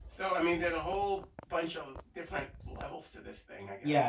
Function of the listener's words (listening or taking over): taking over